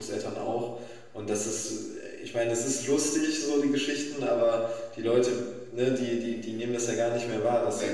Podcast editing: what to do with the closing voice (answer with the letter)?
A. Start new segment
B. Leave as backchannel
B